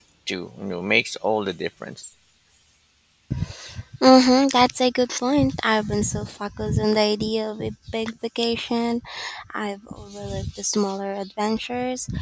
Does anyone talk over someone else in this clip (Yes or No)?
No